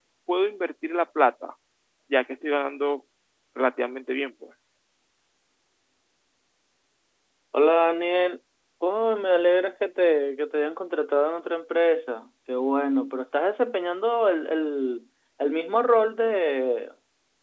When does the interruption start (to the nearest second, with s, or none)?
none